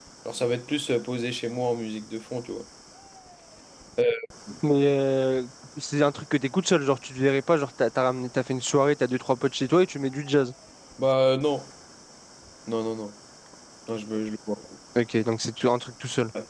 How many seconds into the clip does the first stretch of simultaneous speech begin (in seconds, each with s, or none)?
none